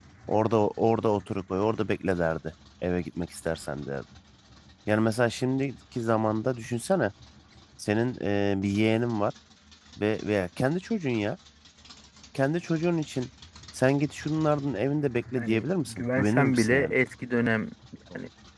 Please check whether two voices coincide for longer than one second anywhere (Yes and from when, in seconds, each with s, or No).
Yes, from 15.4 s